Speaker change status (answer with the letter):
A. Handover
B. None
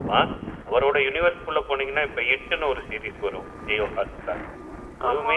B